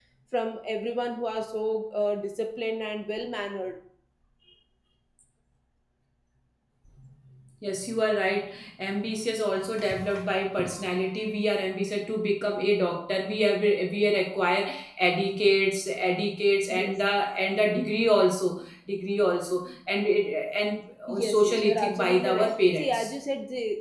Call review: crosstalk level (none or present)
present